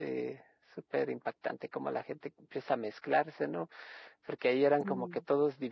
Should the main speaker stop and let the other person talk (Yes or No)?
No